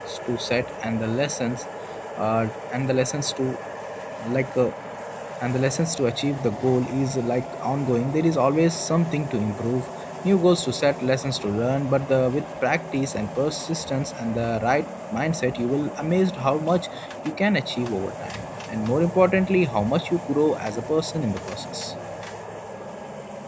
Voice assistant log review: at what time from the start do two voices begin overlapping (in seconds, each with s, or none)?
none